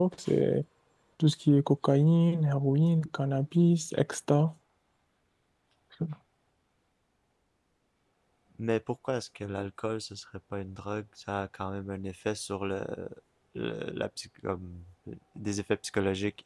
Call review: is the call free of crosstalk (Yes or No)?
Yes